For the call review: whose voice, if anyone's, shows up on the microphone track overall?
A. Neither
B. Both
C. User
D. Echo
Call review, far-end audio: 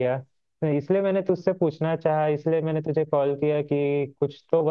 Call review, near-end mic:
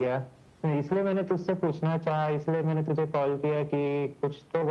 D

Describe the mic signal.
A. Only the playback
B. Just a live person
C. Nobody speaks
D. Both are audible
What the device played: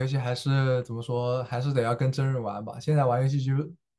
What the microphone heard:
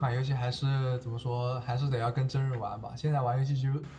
A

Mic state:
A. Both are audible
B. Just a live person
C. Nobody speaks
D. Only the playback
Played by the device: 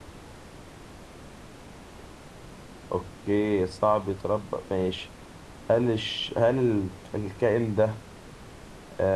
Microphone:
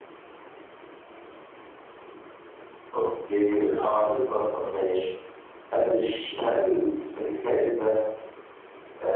A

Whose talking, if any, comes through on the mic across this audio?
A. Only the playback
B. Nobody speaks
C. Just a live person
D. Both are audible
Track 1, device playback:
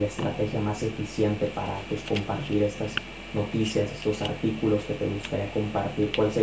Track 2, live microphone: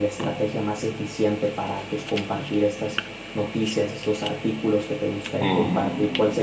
D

